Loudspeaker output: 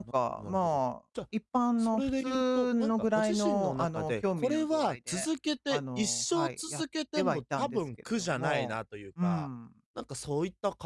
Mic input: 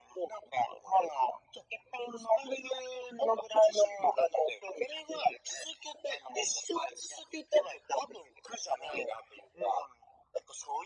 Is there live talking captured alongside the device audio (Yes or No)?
No